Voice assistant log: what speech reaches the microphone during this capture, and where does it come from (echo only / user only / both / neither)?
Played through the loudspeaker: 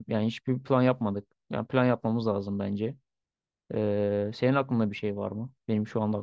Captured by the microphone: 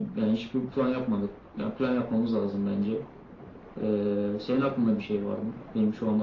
echo only